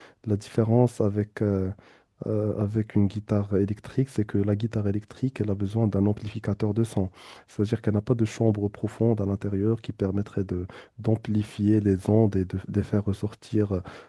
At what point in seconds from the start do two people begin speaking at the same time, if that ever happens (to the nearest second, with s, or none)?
none